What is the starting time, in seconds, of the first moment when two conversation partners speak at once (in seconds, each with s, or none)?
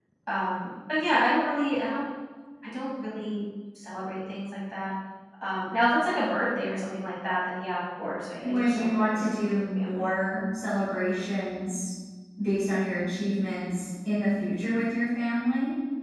8.4 s